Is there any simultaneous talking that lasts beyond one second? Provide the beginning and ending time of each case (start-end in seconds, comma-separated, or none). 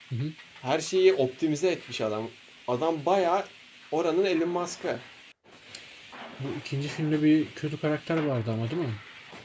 none